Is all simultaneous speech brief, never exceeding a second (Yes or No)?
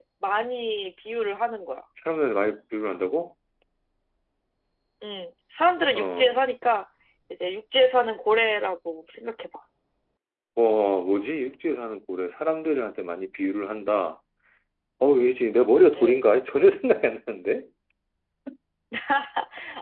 Yes